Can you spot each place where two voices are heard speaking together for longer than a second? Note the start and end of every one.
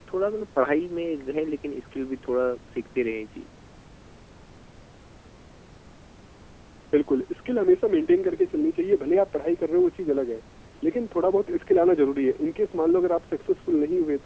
none

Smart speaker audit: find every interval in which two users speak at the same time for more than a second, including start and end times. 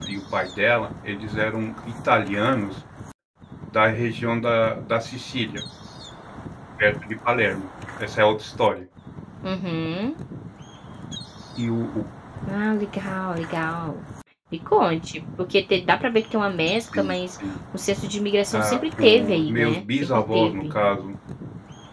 18.5-20.7

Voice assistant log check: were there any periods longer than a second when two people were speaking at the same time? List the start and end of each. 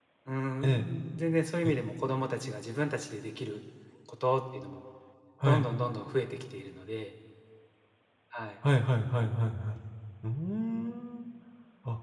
none

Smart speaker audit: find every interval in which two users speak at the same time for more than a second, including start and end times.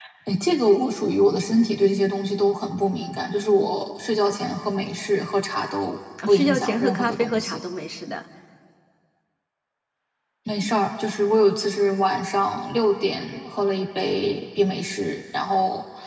6.3-7.6

